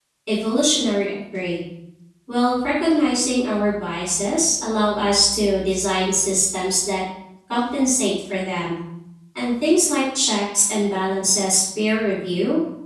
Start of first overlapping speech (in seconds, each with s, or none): none